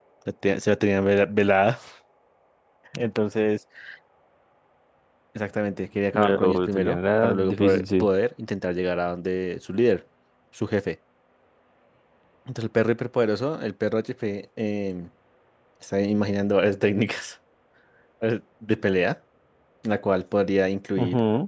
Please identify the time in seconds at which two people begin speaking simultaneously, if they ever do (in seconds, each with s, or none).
6.1 s